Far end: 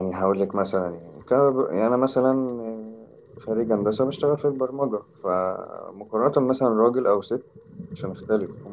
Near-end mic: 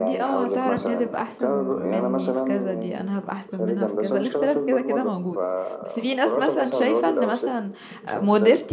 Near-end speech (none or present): present